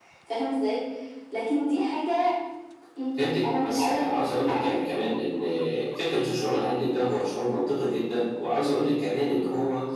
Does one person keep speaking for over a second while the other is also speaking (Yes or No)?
Yes